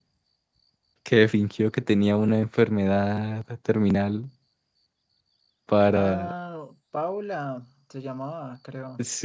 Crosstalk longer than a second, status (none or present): none